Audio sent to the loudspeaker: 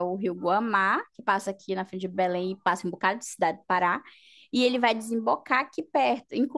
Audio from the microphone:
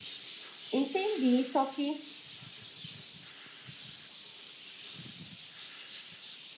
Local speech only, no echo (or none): Entendi, só que